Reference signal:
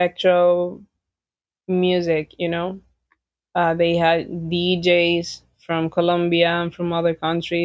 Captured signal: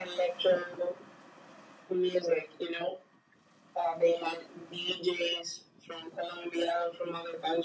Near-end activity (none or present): none